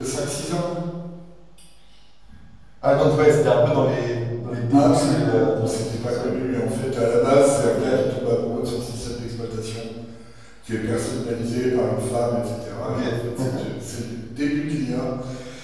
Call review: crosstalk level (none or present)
present